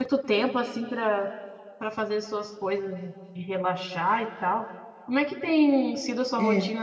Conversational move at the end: listening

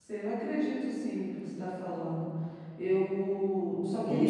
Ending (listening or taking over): taking over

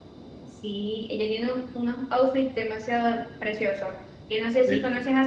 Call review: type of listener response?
listening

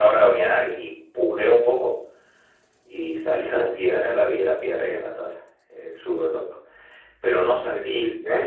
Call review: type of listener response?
listening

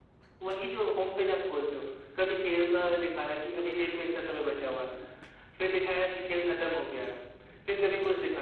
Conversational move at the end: listening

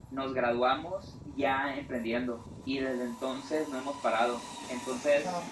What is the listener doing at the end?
listening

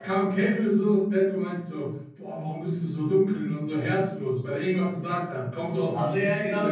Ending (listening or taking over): taking over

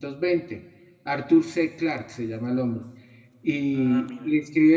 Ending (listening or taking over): listening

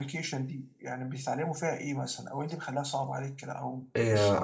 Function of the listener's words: taking over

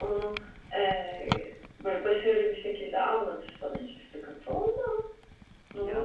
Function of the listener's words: taking over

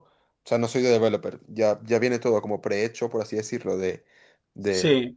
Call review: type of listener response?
taking over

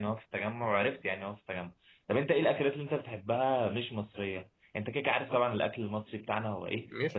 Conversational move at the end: listening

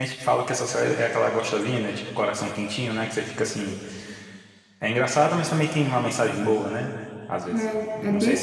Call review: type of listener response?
taking over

